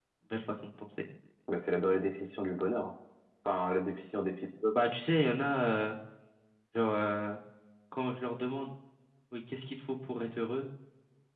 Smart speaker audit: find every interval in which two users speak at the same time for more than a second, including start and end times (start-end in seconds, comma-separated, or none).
none